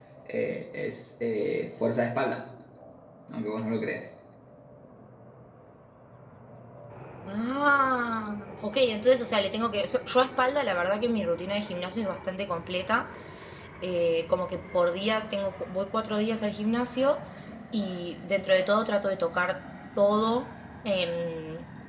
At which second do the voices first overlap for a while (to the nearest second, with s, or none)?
none